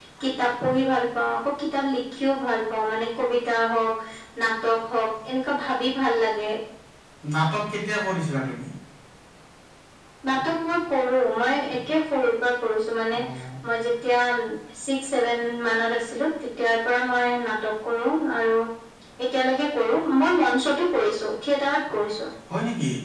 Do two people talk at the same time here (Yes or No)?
No